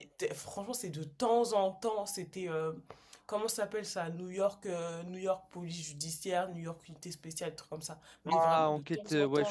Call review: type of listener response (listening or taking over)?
taking over